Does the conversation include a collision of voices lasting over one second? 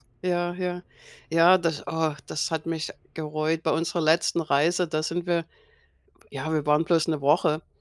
No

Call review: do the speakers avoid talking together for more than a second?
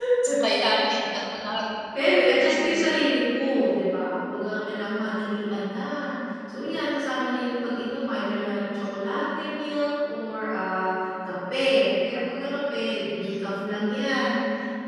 Yes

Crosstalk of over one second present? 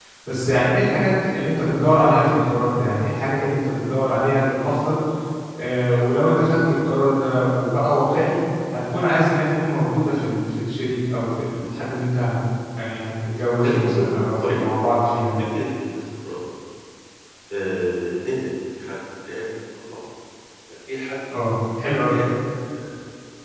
Yes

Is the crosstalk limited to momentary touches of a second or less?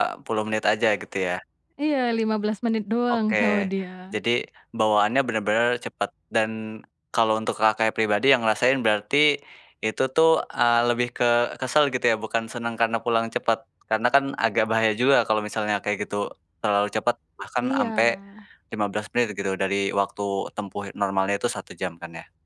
Yes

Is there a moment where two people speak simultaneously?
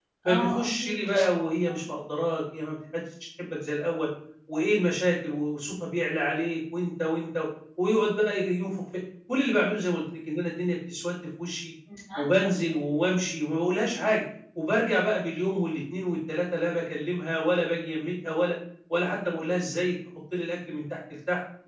Yes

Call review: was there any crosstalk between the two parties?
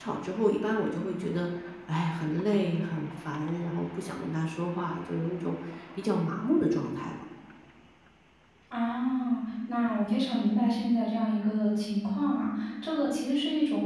No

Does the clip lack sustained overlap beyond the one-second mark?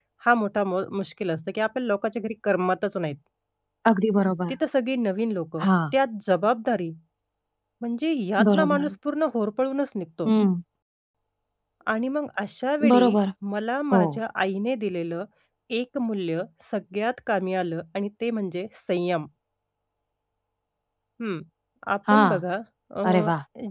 Yes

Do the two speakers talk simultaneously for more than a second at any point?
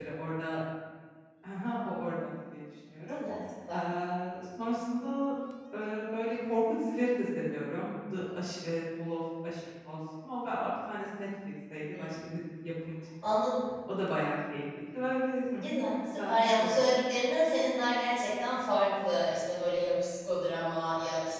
Yes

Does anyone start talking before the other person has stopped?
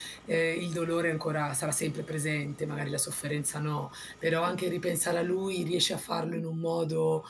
No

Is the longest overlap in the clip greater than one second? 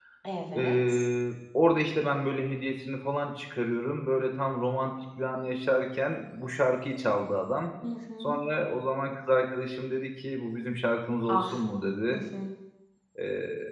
No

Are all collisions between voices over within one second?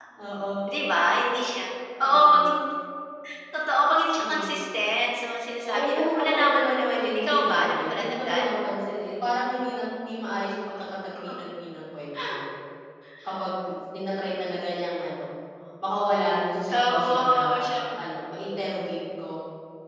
No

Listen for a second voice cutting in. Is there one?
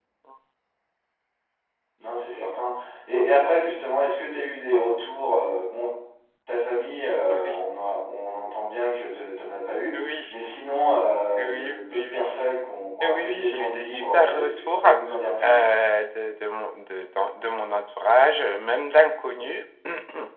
Yes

